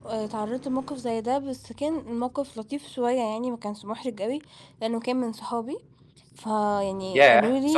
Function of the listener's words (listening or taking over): taking over